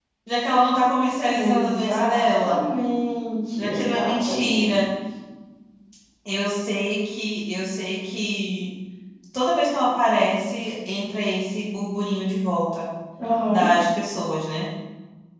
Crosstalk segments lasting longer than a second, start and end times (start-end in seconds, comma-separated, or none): 1.4-2.6, 3.6-4.8